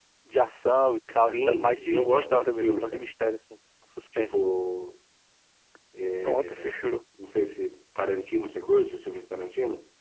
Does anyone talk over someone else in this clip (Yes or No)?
Yes